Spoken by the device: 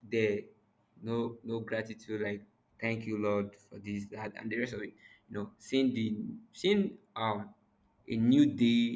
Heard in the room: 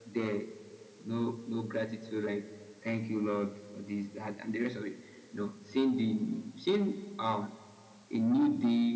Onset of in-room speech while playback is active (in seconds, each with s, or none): none